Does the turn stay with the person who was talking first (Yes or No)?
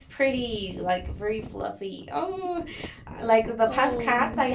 Yes